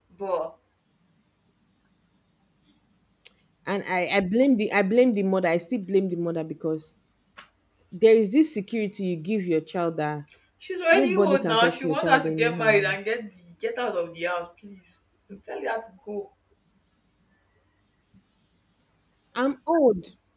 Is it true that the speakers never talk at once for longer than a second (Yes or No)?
No